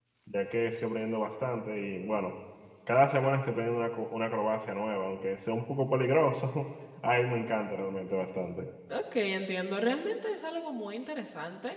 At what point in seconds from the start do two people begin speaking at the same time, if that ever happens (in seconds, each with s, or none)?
none